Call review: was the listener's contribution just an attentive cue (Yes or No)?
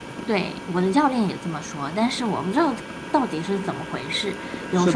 No